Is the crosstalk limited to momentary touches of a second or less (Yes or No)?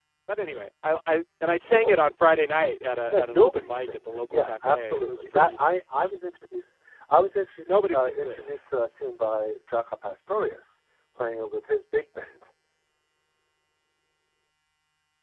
No